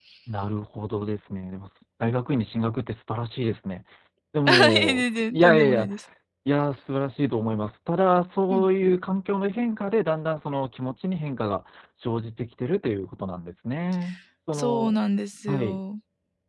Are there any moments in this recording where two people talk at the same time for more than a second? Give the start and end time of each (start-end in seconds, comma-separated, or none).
4.5-5.9